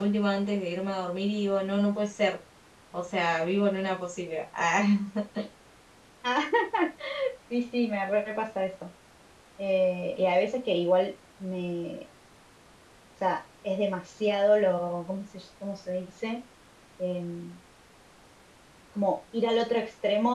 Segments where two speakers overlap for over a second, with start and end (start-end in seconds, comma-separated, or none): none